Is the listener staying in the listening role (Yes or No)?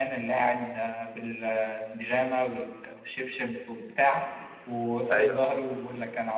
Yes